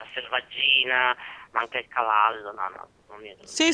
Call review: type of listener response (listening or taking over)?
taking over